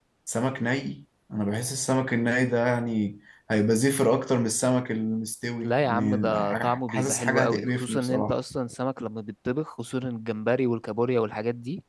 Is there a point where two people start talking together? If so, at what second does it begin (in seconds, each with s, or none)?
5.6 s